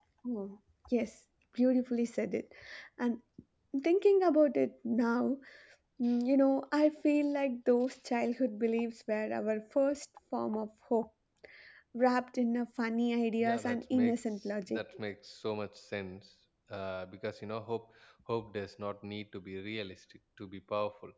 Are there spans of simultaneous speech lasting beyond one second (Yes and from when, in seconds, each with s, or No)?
Yes, from 13.4 s